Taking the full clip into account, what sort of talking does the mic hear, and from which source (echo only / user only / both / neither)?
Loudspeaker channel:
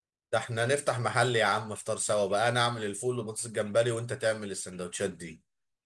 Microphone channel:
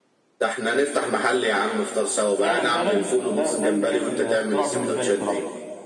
both